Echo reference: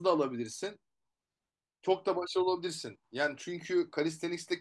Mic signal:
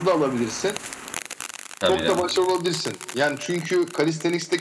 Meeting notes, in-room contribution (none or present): present